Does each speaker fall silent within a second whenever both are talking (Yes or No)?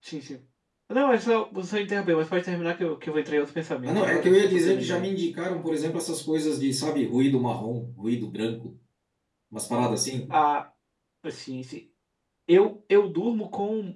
No